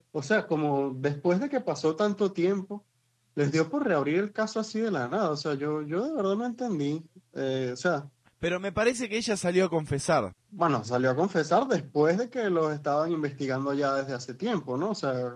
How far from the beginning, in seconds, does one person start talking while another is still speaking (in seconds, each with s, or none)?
none